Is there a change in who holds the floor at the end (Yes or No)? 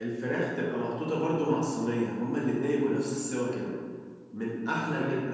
No